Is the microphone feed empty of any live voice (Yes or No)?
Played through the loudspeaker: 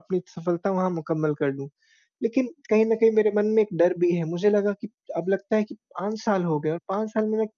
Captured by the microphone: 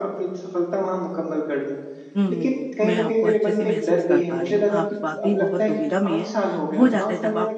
No